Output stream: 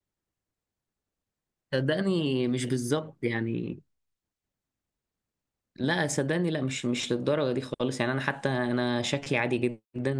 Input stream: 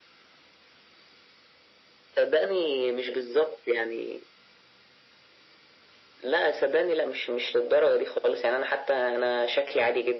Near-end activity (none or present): none